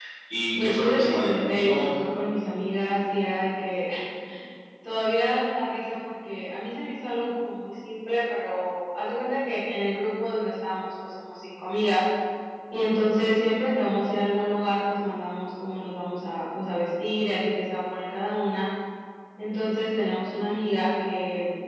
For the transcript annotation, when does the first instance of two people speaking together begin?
0.6 s

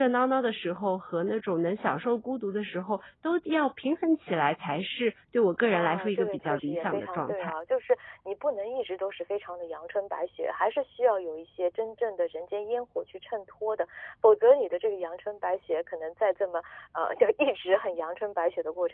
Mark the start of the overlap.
5.7 s

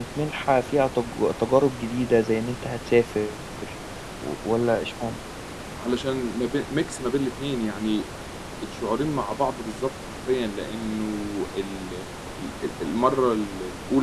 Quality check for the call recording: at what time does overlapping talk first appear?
none

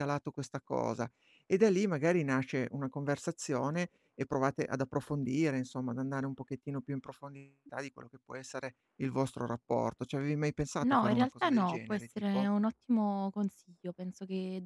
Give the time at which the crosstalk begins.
10.8 s

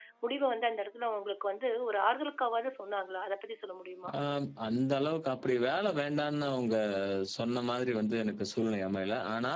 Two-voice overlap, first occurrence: none

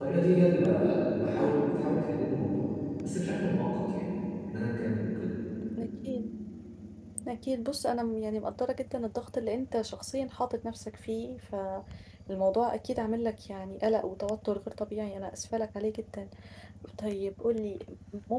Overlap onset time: none

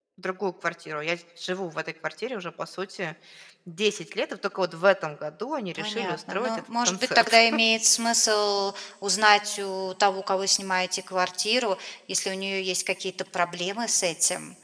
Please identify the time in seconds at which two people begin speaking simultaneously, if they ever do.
5.8 s

